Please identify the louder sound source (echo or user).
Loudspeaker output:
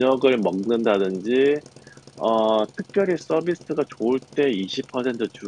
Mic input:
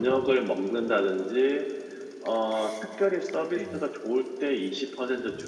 echo